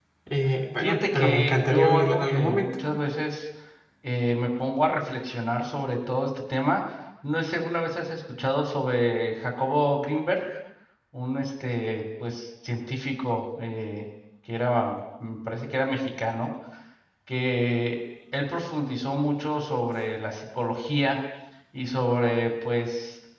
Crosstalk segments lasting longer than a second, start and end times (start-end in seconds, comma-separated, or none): 0.8-2.7